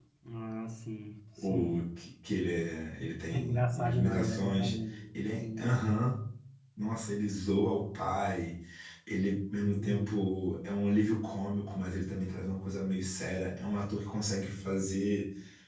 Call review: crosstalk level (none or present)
present